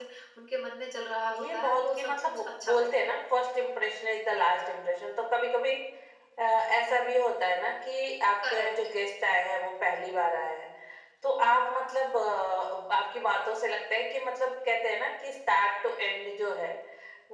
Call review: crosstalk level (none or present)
present